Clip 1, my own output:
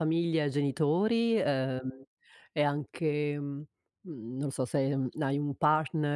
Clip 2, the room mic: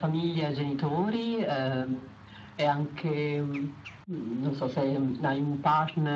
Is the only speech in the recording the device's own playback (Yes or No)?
Yes